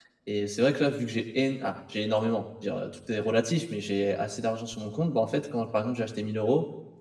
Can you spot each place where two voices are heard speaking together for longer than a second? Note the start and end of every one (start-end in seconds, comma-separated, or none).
none